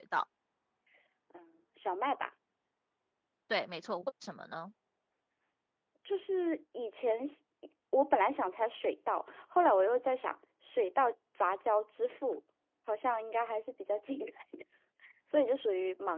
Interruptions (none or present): none